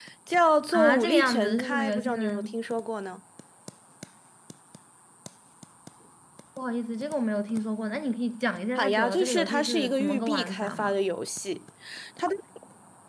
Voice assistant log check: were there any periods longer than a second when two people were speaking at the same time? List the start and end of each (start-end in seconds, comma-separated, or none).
0.7-2.4, 8.8-10.9